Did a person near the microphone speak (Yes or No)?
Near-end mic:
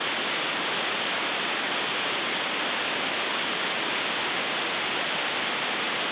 No